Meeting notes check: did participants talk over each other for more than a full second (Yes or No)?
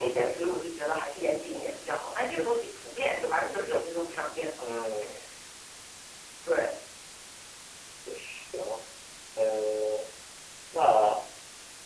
No